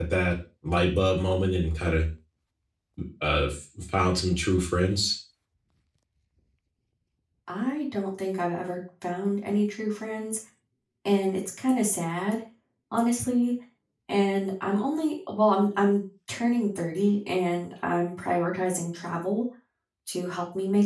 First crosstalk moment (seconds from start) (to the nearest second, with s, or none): none